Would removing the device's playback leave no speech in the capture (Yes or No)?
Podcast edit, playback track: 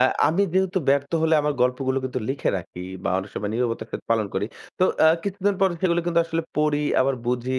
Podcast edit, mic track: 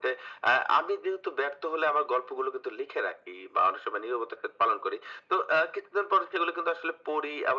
Yes